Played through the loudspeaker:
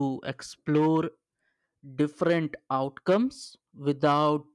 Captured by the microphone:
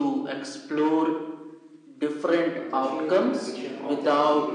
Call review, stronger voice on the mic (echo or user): echo